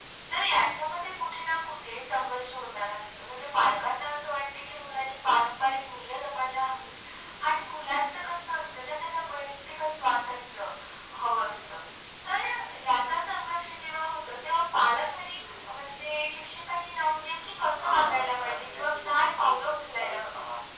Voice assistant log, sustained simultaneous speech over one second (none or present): present